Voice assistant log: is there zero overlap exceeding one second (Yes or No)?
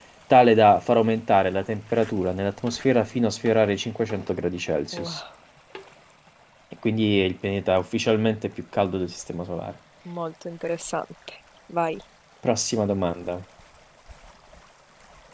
Yes